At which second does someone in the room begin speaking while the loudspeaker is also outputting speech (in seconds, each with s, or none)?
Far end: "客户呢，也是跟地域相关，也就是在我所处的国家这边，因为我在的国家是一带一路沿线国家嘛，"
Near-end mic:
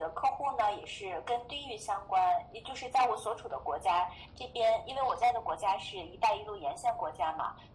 none